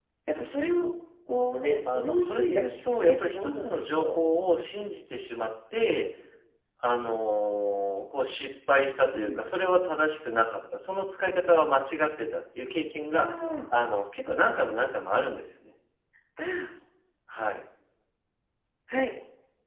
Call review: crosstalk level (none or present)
present